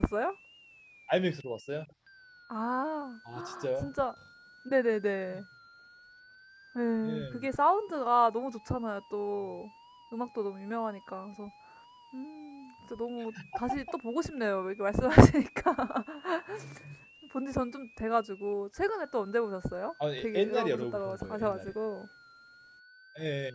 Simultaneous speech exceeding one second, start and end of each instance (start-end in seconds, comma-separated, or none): 20.2-21.7